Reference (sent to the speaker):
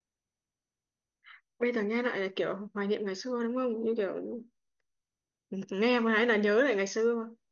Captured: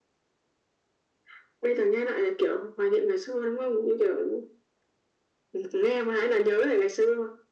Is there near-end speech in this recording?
No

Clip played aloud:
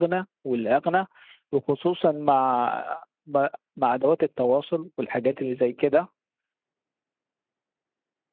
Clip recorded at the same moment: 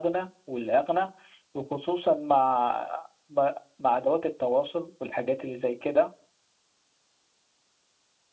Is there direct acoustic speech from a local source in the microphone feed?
No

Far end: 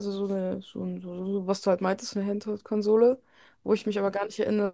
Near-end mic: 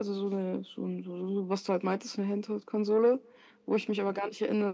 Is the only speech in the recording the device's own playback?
Yes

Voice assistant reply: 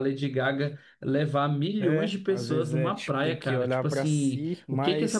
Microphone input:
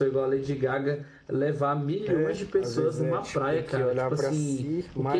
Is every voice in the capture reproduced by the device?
Yes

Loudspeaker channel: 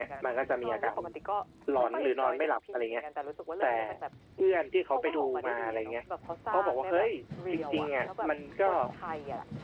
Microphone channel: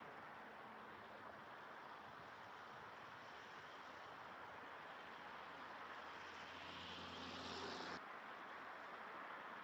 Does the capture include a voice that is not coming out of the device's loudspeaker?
No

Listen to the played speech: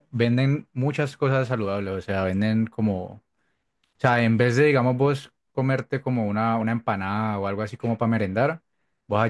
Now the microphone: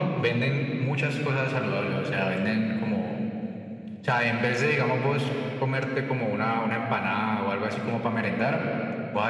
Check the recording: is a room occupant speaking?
No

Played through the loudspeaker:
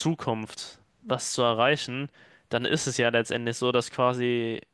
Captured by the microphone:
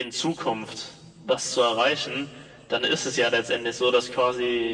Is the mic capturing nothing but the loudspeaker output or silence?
Yes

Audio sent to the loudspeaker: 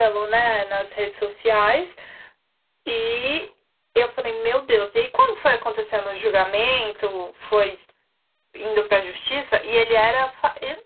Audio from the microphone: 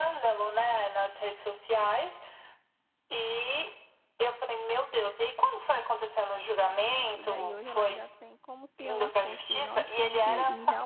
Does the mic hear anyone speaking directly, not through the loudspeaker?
Yes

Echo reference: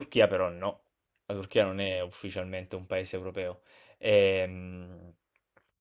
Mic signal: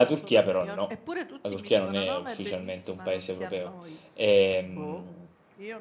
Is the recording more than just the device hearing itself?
Yes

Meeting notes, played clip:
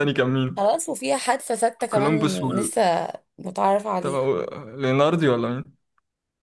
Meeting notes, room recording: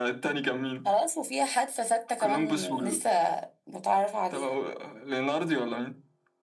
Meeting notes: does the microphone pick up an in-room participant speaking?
No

